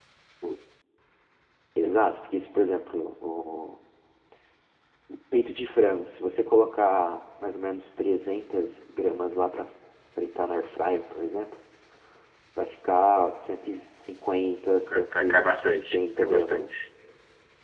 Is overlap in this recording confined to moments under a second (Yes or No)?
No